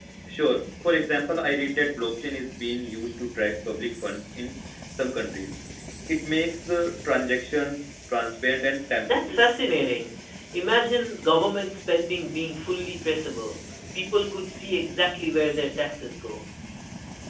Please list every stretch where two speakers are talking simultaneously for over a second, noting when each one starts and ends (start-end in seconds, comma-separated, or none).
none